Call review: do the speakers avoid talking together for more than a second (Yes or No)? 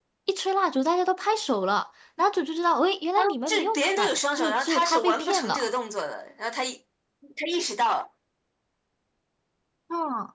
No